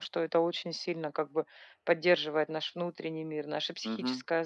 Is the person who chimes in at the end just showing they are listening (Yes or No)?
No